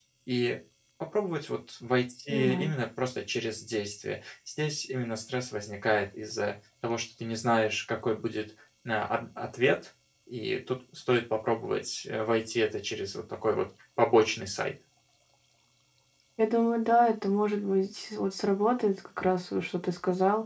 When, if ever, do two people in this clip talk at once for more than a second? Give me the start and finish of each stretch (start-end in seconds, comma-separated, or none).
none